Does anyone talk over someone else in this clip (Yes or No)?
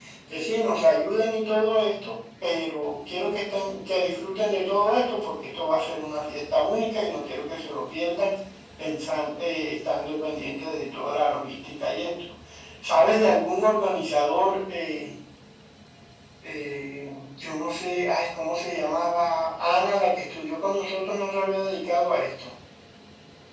No